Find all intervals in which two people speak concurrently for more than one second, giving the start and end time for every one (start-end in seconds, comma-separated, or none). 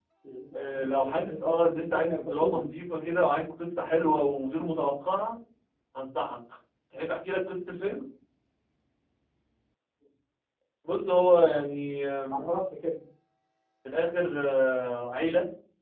0.5-2.6